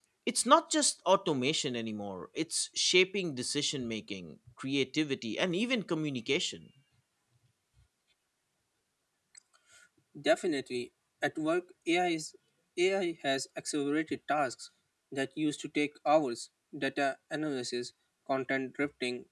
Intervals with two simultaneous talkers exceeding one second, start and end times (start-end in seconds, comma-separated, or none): none